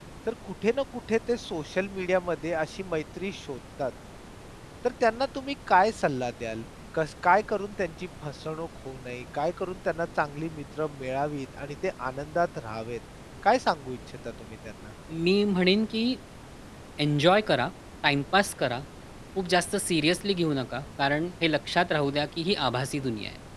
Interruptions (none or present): none